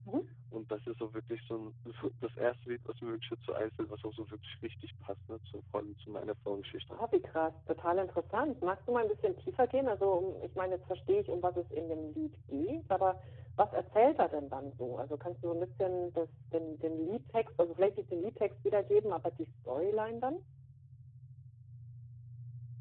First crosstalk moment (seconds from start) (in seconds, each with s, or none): none